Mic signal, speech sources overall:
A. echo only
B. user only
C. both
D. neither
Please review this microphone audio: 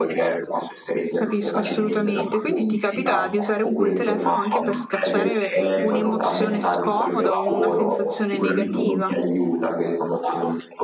C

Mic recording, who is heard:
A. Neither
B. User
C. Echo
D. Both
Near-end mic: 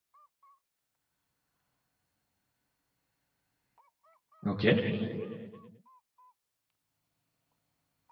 B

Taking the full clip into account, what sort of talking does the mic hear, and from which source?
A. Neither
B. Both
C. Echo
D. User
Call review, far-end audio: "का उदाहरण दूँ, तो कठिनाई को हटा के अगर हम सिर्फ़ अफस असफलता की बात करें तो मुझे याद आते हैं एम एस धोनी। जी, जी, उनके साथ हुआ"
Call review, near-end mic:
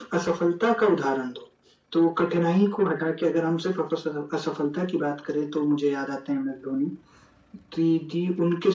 C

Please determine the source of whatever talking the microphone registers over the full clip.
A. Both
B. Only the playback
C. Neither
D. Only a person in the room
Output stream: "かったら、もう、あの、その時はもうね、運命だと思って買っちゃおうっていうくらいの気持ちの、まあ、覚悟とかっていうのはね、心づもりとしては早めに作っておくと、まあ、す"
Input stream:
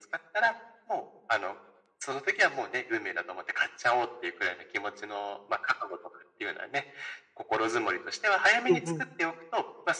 A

